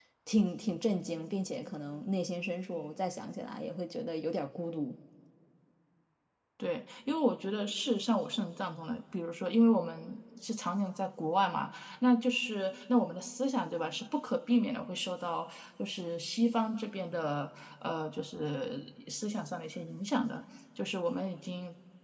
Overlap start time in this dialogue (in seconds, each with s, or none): none